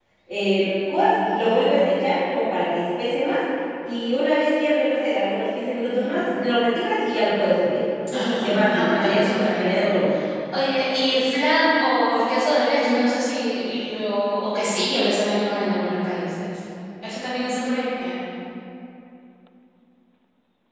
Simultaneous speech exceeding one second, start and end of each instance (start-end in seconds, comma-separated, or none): 8.1-9.9